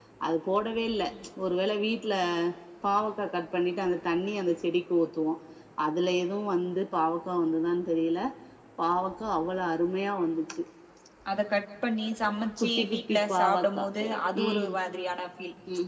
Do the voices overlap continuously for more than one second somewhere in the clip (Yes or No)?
Yes